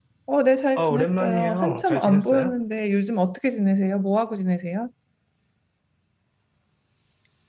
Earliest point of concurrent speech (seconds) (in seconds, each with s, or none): 0.8 s